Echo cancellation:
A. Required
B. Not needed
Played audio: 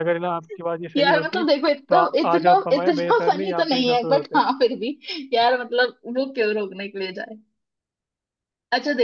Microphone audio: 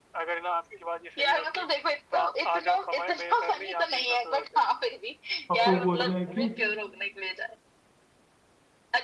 A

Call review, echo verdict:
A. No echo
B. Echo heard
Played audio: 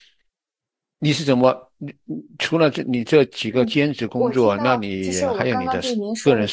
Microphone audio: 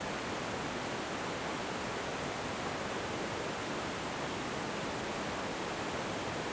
A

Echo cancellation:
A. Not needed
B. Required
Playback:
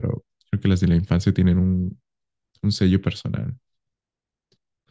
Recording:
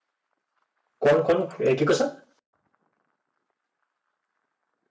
A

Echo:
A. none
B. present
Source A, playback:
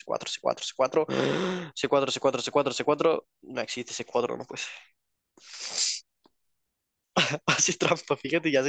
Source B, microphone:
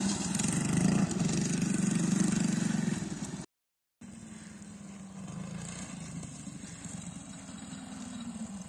A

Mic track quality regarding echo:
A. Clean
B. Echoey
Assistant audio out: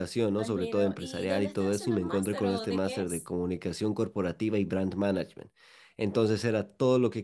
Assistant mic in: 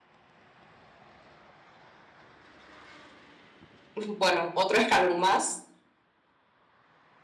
A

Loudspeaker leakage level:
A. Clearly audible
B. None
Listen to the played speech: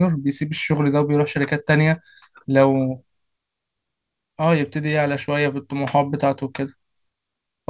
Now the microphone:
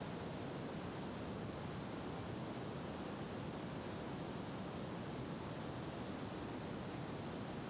B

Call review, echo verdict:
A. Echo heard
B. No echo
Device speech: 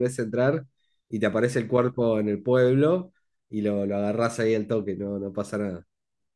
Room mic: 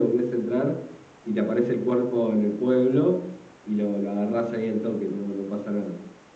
A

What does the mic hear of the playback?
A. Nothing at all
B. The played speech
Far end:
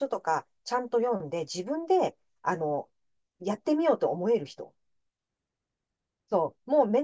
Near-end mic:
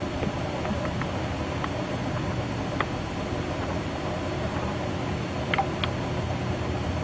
A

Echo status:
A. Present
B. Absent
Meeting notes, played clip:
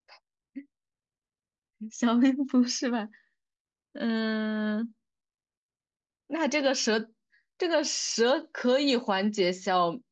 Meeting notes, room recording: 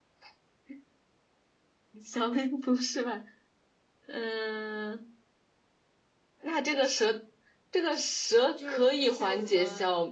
A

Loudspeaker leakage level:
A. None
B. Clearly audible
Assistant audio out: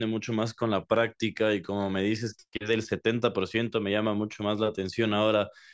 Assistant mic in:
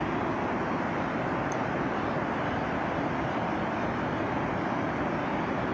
A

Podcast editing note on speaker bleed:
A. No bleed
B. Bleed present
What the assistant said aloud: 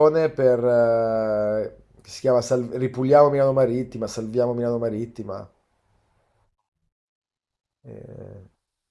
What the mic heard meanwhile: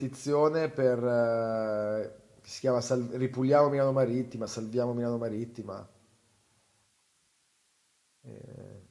B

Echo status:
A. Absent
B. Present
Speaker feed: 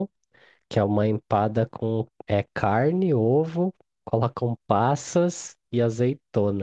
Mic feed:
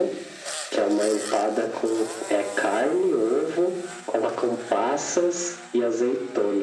B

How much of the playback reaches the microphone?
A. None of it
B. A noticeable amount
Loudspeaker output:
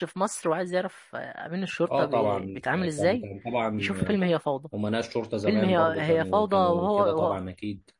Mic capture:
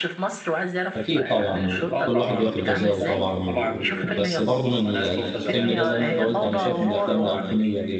B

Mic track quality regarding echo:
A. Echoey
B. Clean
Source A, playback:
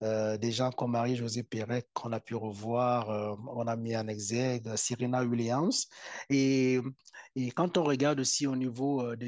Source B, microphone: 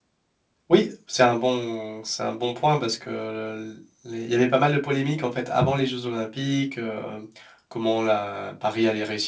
B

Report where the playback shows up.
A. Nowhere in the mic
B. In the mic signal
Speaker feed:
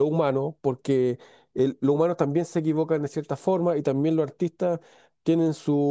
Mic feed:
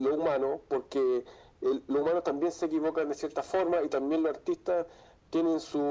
B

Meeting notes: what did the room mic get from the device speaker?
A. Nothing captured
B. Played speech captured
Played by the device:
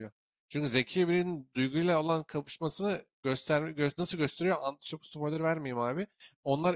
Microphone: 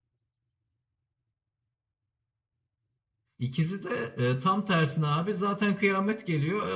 A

